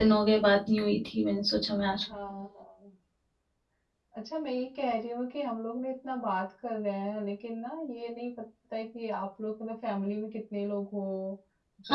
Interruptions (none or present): none